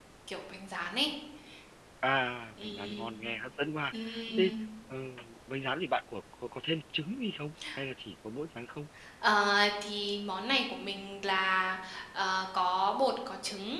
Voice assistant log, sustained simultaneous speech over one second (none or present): none